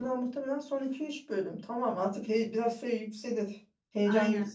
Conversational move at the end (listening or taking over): listening